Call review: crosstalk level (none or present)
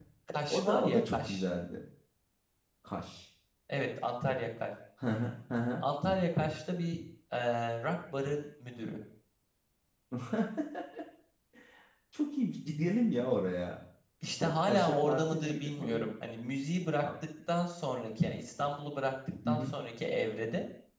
present